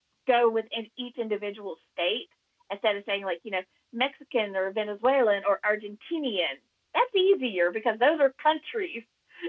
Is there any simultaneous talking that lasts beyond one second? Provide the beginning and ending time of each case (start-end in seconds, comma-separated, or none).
none